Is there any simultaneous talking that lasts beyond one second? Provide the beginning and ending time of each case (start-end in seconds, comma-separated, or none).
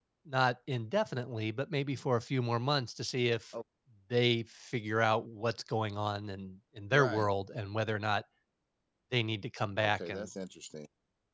none